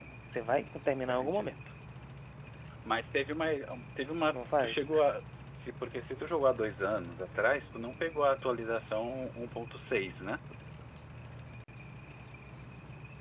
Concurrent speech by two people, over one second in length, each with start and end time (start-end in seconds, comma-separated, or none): none